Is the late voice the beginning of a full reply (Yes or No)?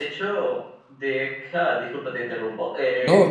No